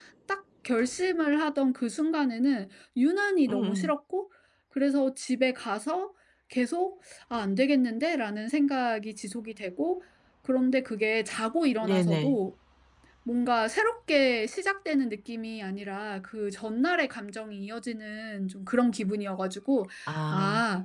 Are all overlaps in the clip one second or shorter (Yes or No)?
Yes